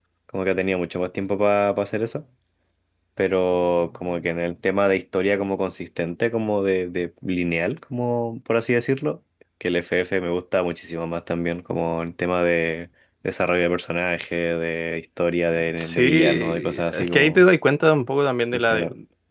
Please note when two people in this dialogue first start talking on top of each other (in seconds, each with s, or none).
15.8 s